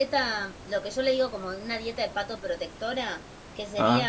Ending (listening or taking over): listening